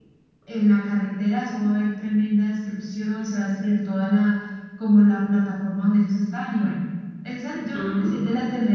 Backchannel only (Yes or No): Yes